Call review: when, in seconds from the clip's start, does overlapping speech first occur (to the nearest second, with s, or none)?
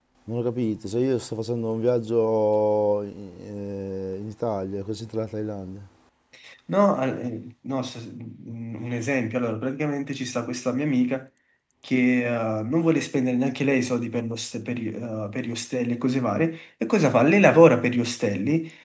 none